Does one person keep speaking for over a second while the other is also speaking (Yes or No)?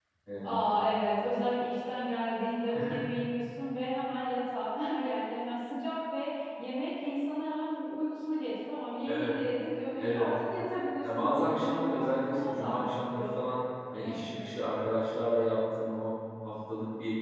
Yes